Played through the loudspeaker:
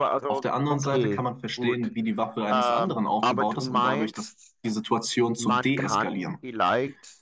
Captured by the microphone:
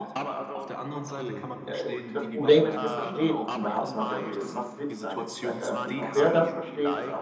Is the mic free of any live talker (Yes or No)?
No